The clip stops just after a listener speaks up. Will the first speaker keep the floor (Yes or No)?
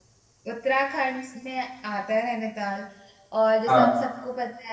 Yes